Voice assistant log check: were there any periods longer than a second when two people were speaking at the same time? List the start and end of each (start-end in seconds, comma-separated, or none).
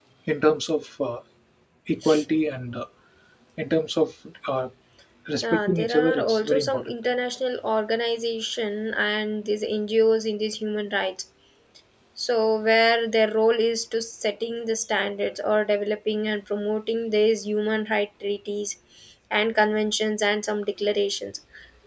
5.4-6.9